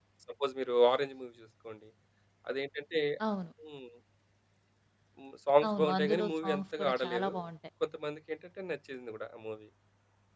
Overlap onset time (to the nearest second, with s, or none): 6 s